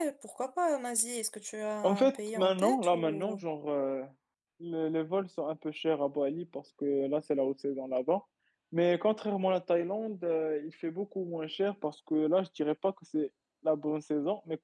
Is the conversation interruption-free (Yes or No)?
No